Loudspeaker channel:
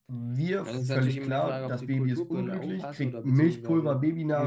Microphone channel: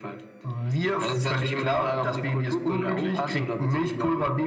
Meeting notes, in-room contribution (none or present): none